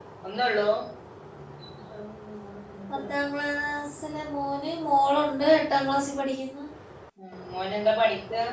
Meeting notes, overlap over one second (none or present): none